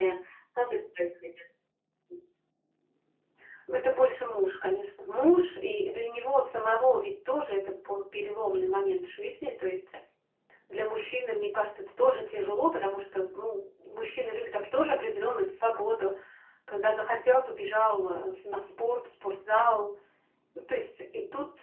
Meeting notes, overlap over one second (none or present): none